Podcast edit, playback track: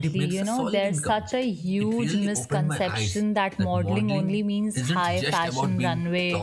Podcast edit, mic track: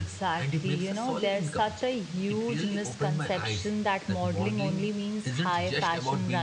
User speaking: No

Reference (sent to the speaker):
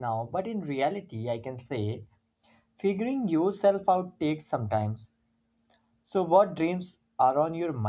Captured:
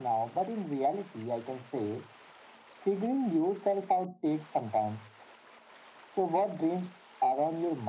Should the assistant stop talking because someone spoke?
No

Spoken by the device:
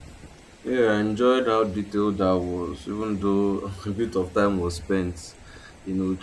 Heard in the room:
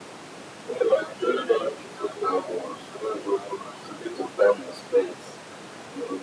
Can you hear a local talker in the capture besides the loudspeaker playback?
No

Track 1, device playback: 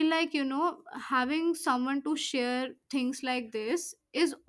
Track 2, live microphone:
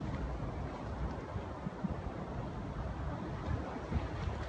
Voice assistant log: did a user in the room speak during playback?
No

